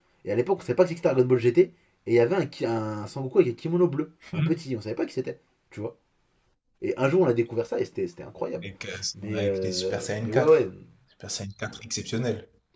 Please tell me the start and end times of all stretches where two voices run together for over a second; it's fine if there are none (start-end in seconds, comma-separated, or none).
9.3-10.6